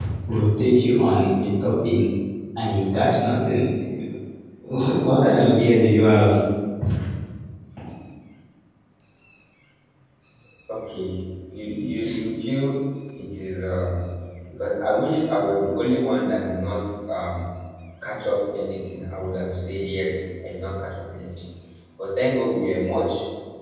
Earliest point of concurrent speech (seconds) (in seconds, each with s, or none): none